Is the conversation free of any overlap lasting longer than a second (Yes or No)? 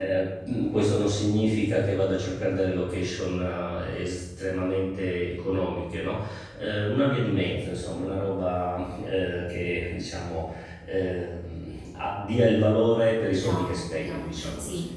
No